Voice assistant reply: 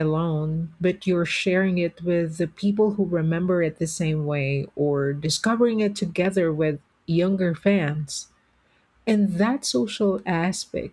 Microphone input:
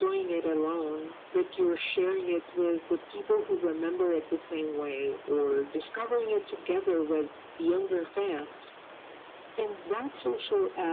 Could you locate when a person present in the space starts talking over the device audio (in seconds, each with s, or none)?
none